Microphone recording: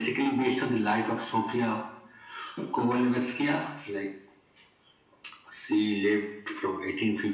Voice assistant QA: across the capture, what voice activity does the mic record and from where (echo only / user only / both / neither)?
echo only